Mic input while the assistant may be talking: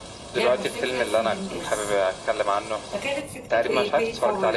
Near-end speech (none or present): present